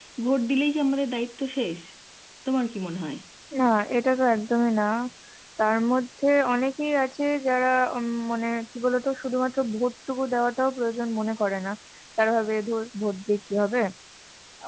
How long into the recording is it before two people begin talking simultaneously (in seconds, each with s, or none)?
none